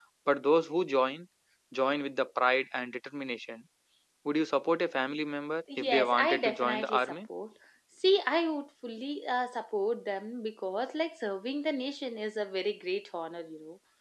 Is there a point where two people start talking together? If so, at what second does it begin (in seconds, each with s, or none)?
5.7 s